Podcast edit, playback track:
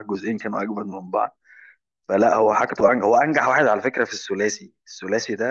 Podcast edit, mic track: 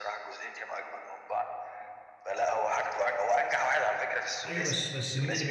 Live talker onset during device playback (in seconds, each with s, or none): 4.5 s